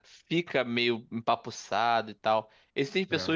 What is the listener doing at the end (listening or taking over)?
listening